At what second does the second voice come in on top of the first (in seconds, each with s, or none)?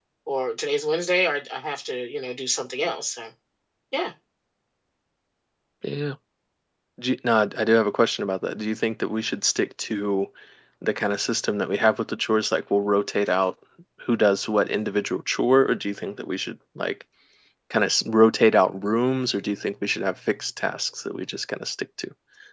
none